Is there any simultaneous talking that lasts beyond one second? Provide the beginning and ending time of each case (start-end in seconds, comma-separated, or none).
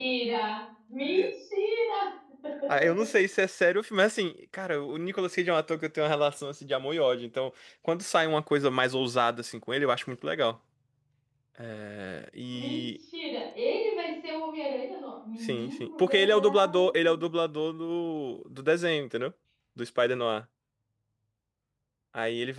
15.4-16.9